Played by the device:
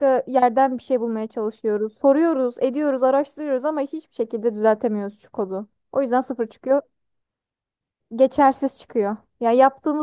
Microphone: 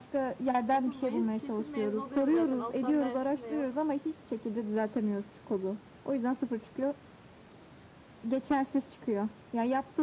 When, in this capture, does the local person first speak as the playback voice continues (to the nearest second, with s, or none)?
1 s